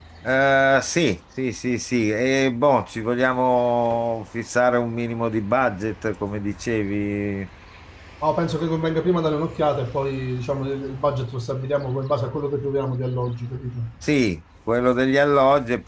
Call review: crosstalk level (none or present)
none